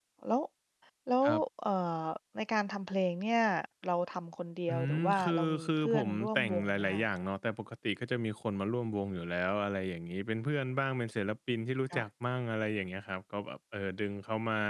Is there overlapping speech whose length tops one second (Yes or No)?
Yes